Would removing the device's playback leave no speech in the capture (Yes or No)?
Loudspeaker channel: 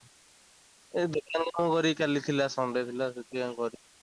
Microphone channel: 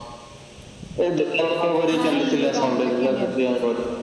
No